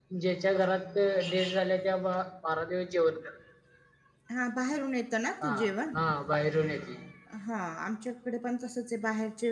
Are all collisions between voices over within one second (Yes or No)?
Yes